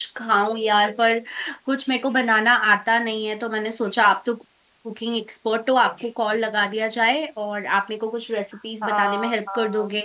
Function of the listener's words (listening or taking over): taking over